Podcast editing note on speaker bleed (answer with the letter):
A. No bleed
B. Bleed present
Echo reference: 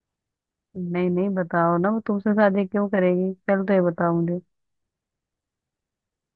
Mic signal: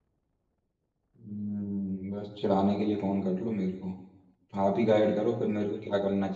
A